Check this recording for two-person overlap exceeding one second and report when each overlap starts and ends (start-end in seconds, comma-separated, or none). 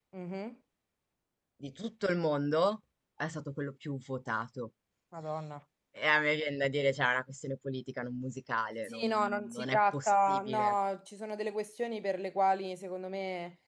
8.9-10.7